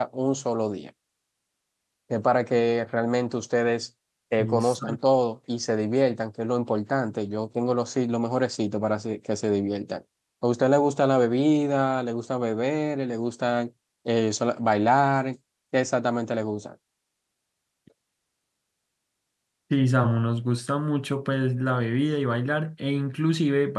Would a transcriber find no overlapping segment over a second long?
Yes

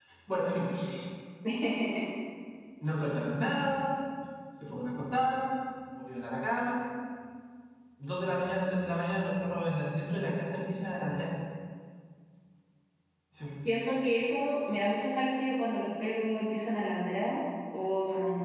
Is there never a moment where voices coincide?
Yes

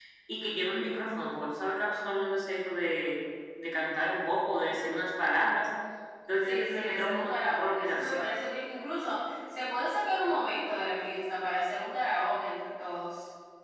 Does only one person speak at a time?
No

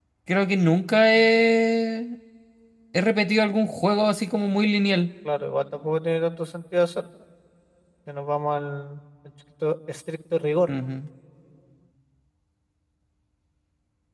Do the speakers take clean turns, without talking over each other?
Yes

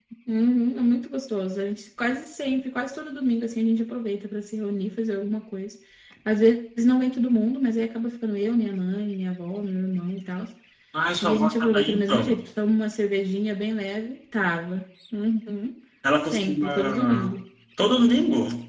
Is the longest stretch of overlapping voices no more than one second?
No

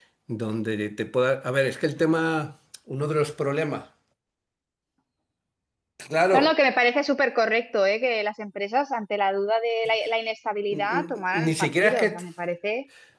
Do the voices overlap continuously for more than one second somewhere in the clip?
Yes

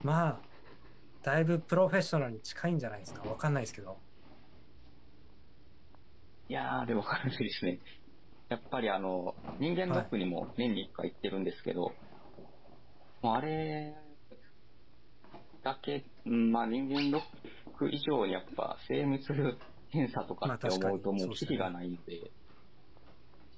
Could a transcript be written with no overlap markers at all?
No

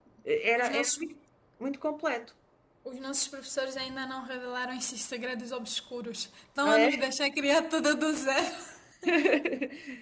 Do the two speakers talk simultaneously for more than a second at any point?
No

